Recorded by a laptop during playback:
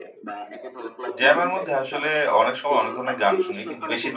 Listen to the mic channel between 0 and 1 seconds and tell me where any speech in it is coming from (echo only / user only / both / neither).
echo only